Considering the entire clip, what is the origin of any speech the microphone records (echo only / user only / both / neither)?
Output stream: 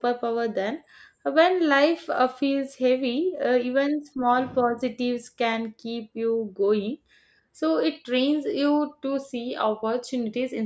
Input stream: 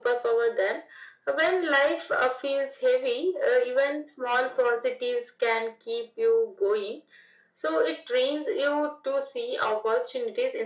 echo only